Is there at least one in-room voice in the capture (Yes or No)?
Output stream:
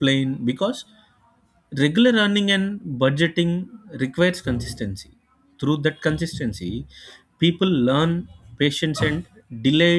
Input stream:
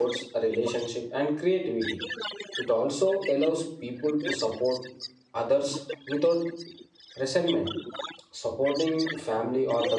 Yes